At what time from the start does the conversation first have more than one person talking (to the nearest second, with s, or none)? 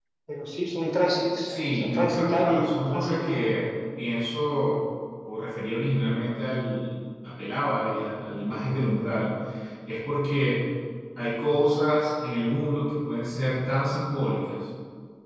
1 s